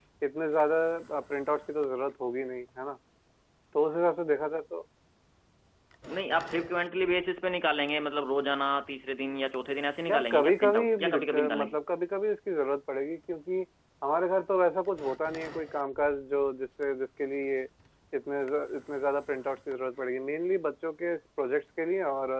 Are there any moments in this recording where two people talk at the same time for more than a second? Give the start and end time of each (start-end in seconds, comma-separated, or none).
10.1-11.8